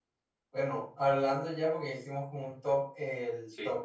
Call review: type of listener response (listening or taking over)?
listening